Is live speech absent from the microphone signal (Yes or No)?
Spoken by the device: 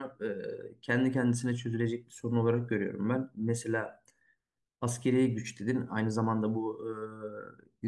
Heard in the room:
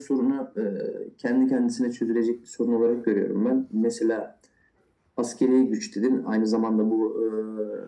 Yes